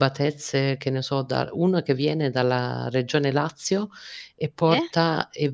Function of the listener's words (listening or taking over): listening